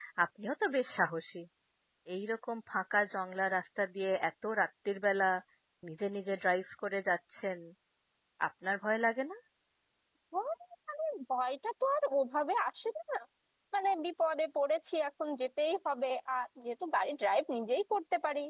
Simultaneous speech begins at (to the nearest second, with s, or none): none